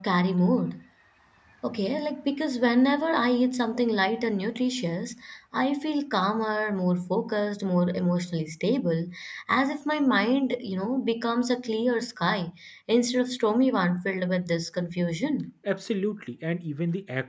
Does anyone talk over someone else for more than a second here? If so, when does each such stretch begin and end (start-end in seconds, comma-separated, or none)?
none